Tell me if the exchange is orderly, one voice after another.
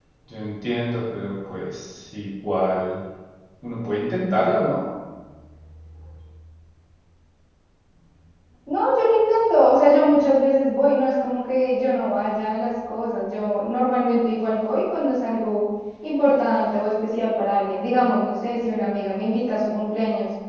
Yes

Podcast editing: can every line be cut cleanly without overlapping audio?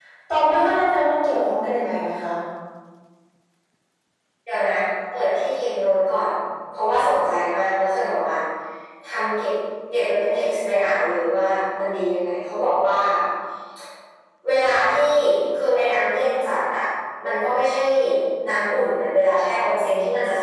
Yes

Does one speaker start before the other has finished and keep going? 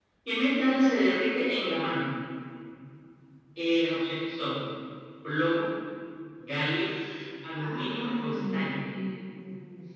Yes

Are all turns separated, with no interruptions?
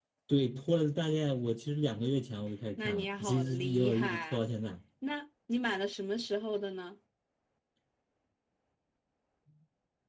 No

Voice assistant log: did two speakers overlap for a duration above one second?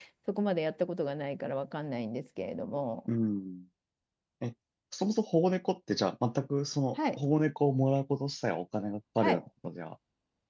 No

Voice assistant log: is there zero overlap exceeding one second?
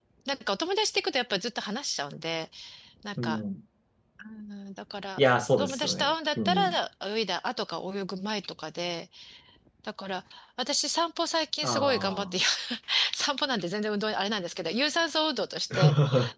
No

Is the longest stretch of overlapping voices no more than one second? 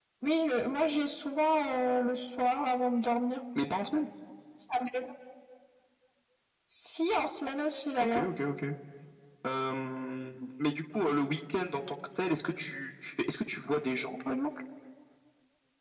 Yes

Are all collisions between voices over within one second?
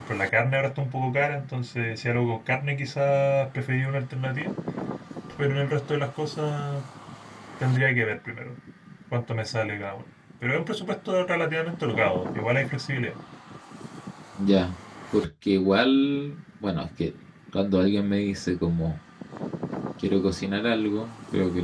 Yes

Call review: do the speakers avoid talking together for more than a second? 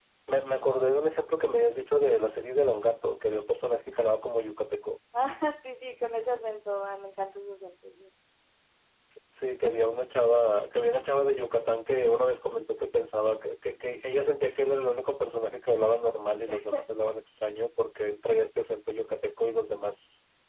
Yes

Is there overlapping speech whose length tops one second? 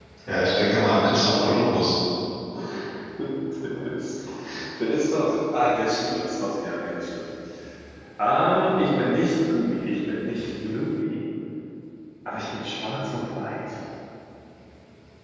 No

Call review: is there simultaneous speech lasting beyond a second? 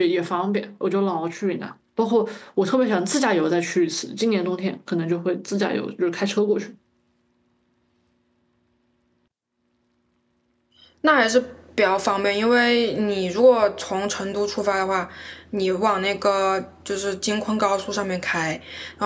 No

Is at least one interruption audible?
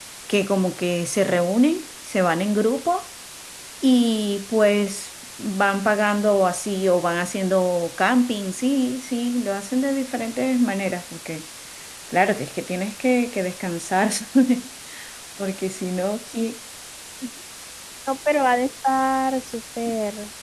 No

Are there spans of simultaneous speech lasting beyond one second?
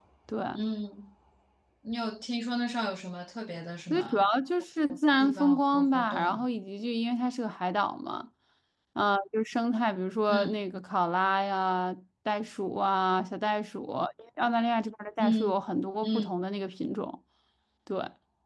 Yes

